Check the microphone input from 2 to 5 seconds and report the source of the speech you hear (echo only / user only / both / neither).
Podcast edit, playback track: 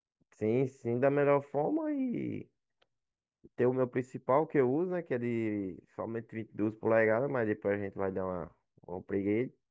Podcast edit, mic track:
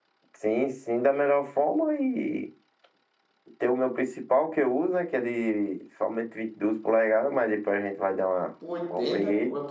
echo only